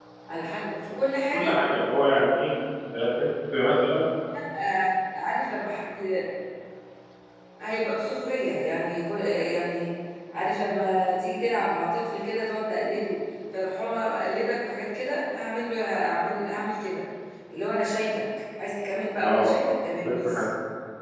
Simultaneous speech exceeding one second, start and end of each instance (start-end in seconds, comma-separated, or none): none